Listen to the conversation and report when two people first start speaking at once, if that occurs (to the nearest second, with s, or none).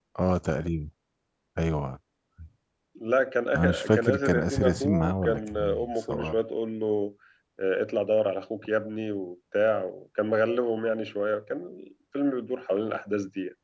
4 s